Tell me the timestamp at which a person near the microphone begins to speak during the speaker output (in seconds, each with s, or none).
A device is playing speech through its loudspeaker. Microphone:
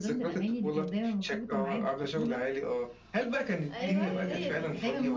3.7 s